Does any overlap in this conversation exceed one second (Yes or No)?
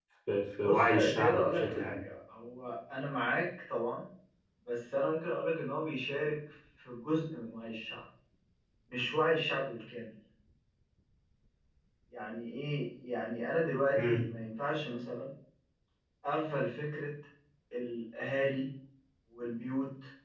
Yes